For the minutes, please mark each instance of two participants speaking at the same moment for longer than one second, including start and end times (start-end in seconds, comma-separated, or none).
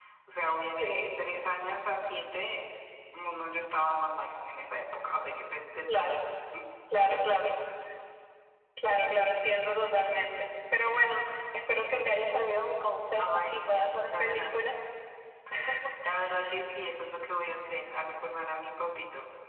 13.2-14.7